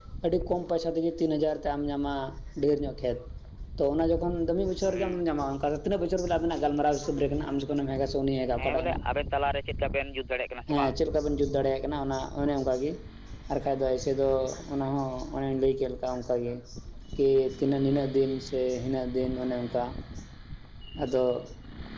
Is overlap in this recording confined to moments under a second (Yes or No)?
Yes